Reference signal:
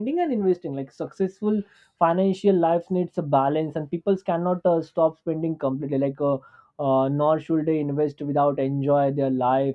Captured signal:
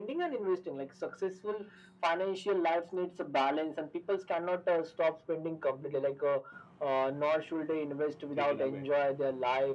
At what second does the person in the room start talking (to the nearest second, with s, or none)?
8 s